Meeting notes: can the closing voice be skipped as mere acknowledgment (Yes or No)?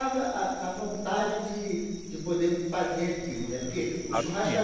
Yes